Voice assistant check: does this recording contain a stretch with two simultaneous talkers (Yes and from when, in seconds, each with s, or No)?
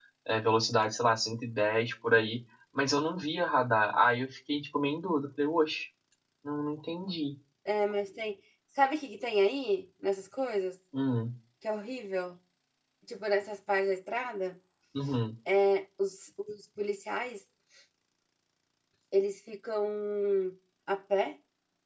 No